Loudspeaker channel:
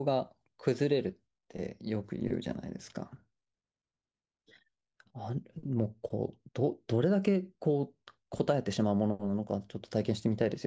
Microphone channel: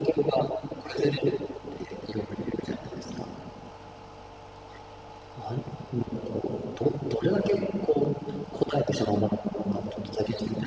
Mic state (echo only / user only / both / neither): echo only